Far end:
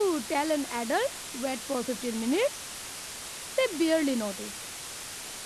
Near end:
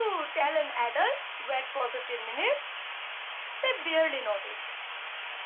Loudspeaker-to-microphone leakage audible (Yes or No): Yes